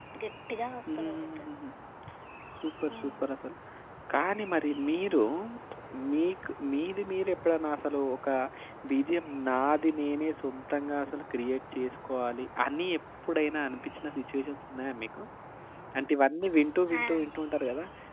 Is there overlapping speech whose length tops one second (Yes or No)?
No